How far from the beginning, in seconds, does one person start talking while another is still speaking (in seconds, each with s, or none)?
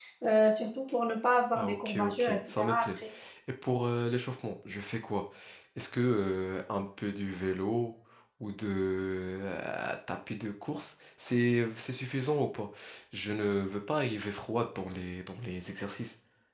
1.6 s